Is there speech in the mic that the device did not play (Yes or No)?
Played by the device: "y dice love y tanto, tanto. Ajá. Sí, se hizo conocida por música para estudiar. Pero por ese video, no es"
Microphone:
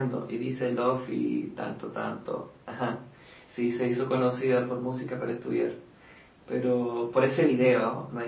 No